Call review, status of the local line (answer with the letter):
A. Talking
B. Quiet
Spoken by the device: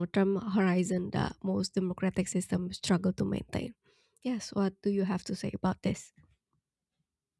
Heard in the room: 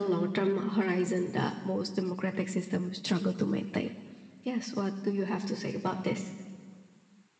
B